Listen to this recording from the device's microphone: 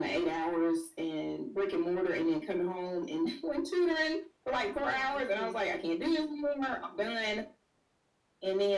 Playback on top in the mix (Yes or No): Yes